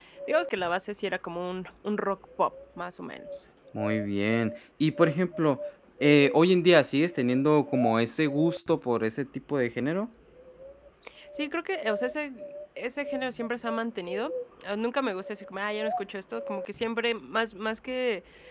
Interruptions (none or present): none